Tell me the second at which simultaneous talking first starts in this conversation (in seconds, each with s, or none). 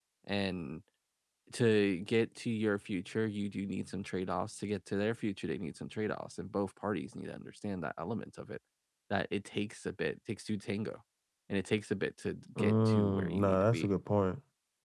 12.6 s